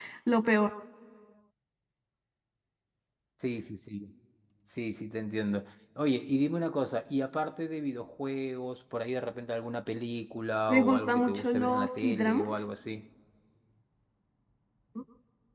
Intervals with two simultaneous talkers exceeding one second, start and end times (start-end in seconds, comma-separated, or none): 10.7-12.5